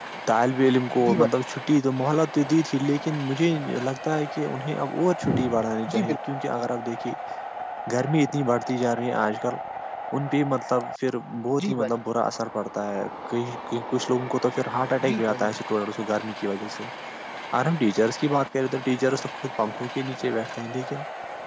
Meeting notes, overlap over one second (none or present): none